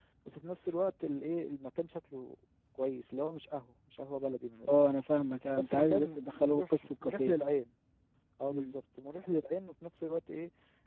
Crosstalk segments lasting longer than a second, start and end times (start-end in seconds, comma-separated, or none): 5.5-7.3